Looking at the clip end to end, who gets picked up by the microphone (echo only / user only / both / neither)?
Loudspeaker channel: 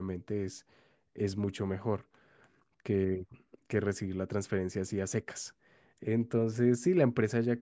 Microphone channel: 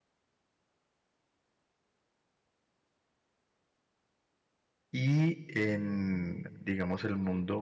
user only